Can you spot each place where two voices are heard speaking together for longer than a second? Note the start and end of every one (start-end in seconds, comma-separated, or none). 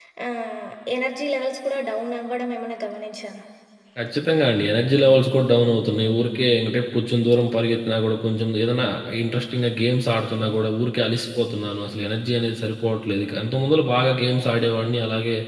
none